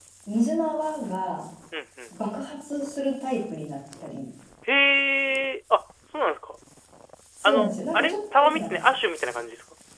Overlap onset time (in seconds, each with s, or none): 7.4 s